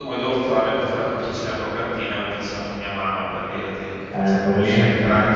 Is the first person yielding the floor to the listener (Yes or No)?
Yes